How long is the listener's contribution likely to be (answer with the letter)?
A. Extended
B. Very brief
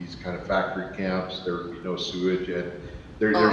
B